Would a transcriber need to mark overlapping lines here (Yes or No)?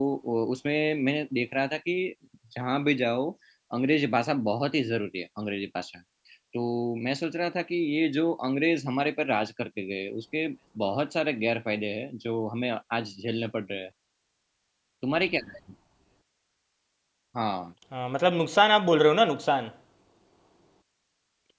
No